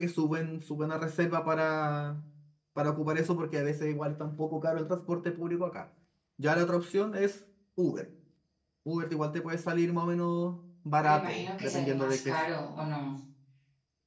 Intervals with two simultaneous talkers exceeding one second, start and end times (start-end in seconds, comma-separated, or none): 11.0-12.4